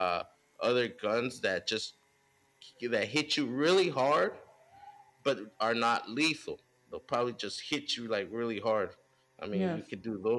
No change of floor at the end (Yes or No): Yes